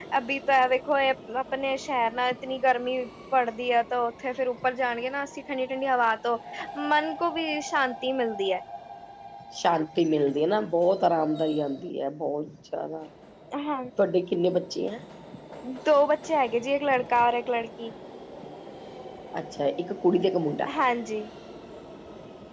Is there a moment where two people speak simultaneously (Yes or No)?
No